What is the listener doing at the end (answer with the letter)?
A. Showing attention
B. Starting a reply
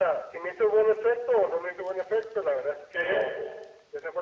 A